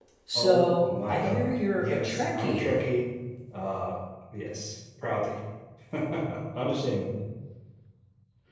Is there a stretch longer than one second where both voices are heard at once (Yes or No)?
Yes